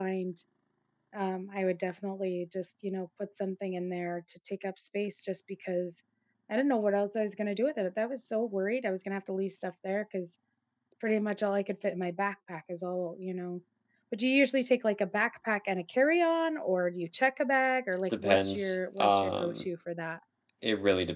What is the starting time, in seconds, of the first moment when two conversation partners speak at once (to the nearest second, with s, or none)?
18 s